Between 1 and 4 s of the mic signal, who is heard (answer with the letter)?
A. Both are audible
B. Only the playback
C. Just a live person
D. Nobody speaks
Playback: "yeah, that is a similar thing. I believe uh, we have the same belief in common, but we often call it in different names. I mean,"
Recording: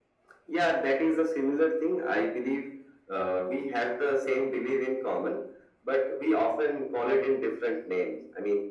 B